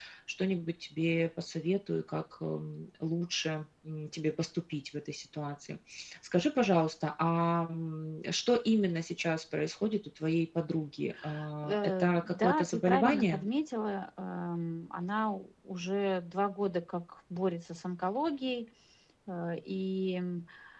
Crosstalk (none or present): present